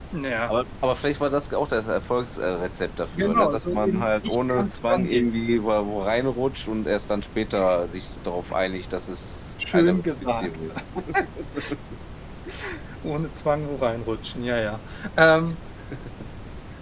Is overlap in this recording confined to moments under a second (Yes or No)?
No